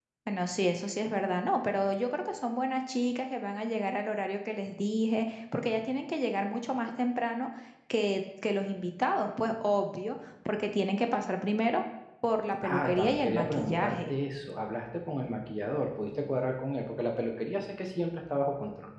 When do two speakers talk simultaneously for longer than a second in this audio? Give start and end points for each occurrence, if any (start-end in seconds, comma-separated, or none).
12.6-14.2